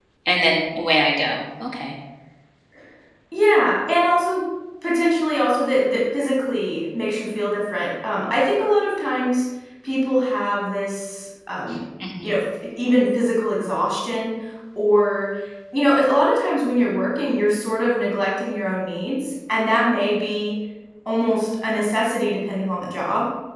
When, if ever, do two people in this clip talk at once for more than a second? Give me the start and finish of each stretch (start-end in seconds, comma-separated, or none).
none